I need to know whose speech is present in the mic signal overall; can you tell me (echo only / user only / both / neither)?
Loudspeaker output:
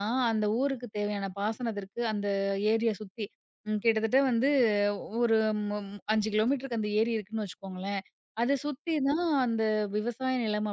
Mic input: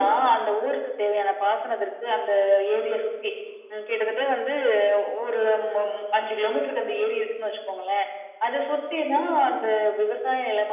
echo only